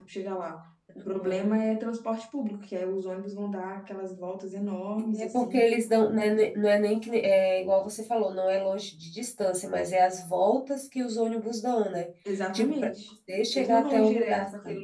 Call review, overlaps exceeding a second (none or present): present